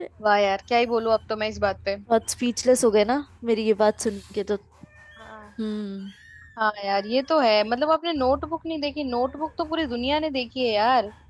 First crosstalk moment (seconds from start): none

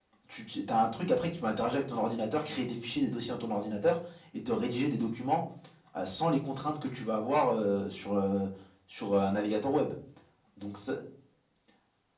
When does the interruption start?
none

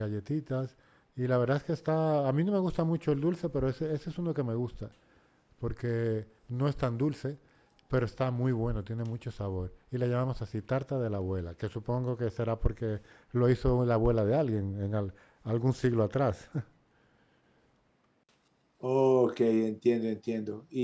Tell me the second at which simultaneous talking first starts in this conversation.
none

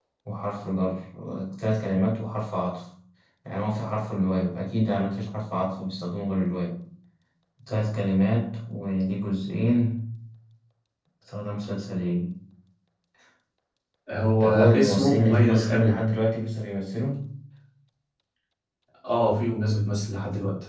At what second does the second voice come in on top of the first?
14 s

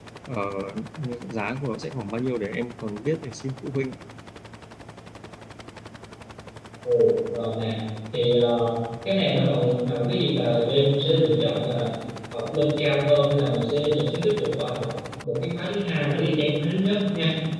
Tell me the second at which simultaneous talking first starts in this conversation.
none

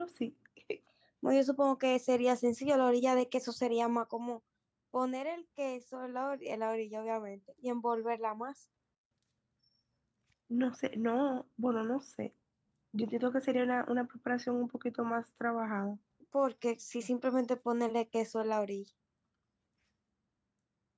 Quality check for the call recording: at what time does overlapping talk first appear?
none

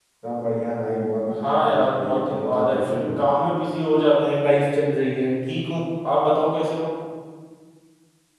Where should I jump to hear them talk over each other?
1 s

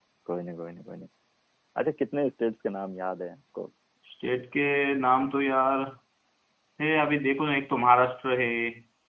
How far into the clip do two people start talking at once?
none

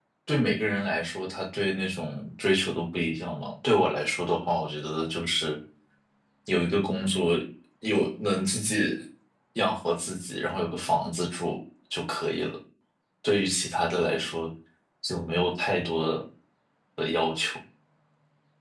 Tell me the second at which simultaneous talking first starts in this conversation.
none

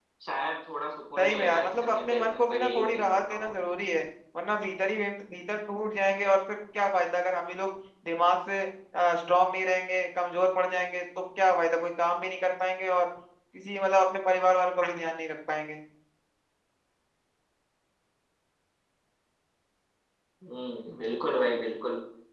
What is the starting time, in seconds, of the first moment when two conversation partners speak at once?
1 s

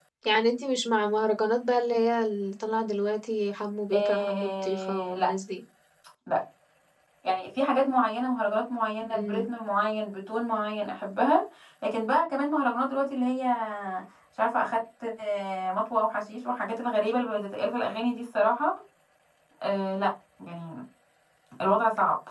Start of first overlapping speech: 4 s

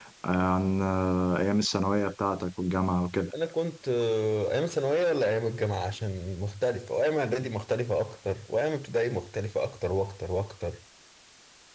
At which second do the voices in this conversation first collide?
none

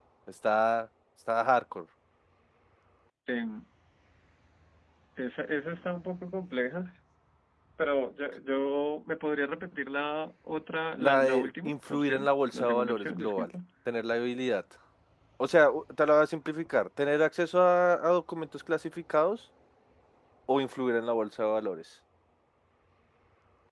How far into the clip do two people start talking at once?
11 s

